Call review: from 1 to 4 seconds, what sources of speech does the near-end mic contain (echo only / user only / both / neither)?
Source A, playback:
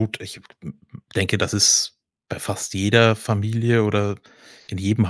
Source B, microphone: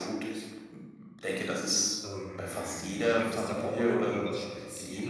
both